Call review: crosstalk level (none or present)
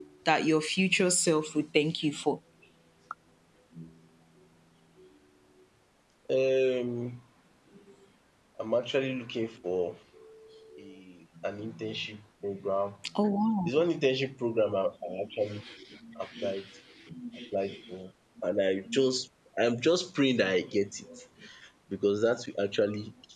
none